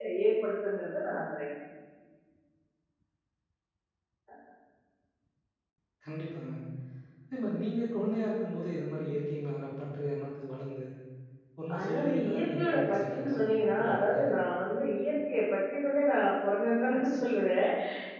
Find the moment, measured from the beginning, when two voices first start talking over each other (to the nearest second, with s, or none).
12 s